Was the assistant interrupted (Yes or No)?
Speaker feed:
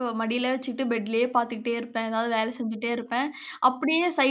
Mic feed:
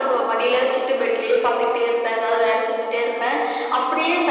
No